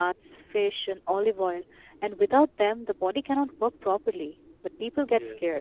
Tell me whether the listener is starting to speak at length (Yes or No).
No